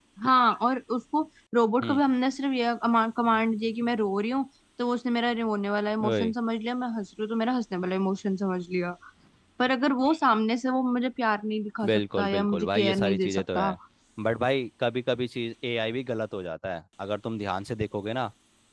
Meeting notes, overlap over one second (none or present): present